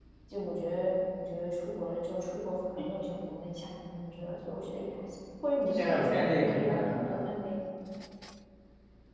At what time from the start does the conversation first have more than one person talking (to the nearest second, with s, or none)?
6 s